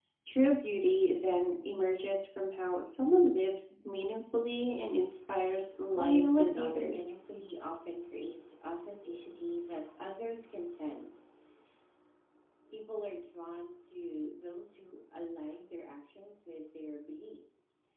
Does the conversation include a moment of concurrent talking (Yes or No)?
Yes